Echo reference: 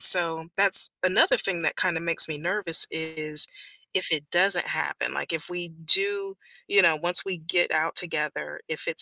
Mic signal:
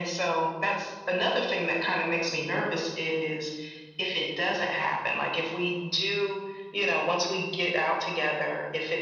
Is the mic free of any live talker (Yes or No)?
Yes